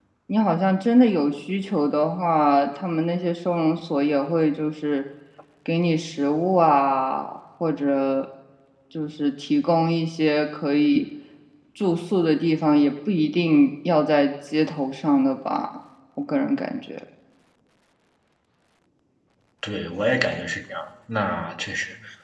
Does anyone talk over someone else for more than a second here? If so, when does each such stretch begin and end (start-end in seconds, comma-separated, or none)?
none